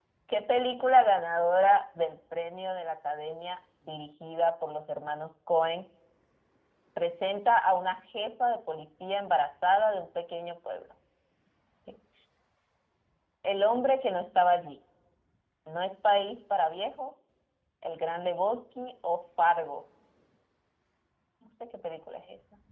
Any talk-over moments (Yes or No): No